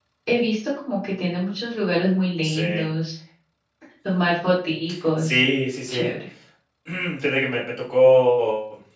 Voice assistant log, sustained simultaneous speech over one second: none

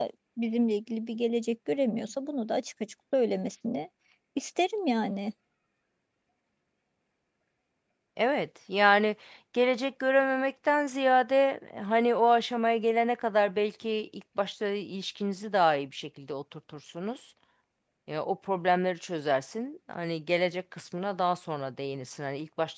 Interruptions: none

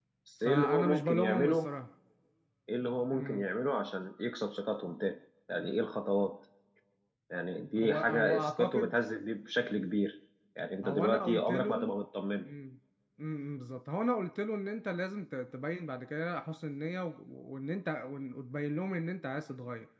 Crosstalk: present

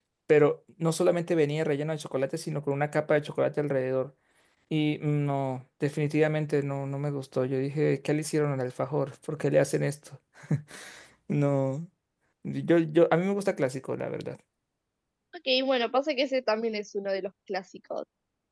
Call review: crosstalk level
none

